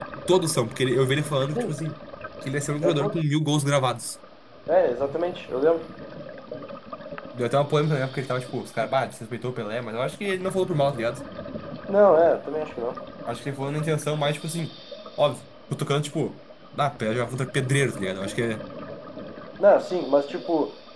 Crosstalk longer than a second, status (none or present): none